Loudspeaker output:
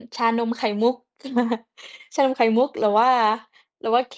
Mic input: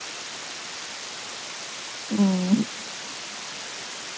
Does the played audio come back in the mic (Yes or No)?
No